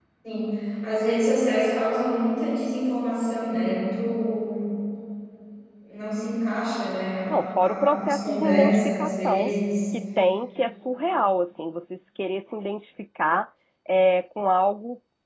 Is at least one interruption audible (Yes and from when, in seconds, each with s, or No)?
Yes, from 7.3 s